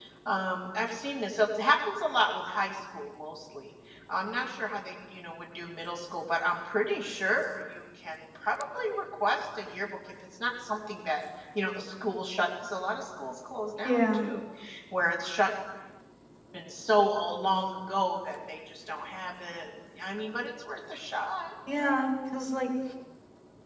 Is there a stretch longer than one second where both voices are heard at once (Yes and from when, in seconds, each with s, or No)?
No